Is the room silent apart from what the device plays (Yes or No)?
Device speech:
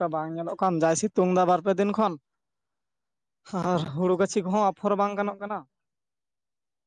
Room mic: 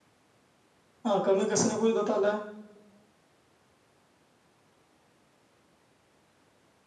No